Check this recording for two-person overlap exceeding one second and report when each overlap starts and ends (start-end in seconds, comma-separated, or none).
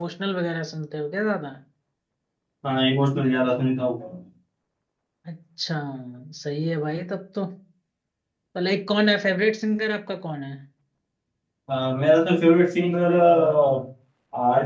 none